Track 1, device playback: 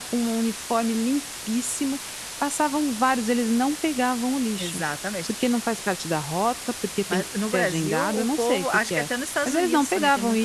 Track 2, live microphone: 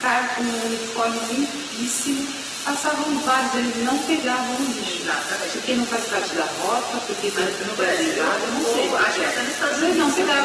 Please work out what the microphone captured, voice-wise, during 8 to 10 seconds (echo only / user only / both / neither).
echo only